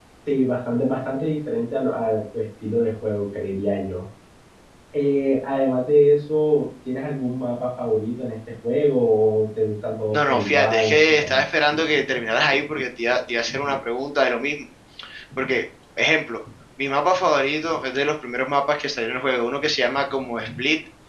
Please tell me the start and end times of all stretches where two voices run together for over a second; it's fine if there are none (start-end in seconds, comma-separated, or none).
10.1-11.4